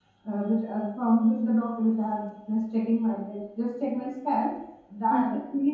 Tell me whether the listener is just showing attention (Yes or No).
Yes